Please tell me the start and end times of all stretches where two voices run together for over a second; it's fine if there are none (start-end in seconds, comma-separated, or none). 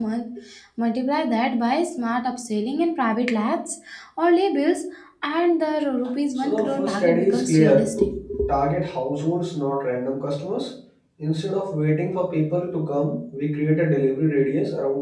6.4-7.9